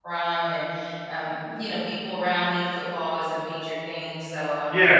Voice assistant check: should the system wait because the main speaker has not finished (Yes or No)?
No